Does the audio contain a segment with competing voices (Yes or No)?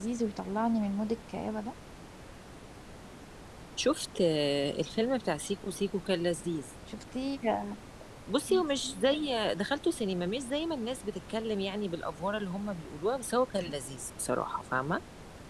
No